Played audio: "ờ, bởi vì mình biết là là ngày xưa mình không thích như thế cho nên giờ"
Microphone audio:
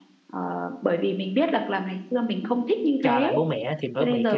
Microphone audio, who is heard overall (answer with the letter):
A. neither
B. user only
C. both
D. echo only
C